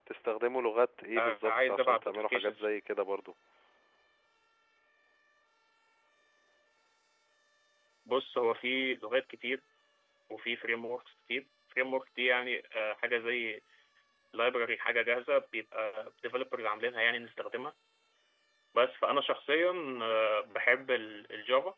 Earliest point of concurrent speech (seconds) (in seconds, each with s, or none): 1.2 s